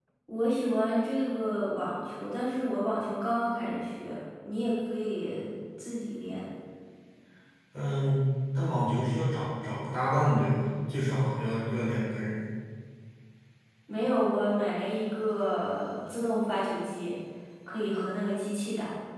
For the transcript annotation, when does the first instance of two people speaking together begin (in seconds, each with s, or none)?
none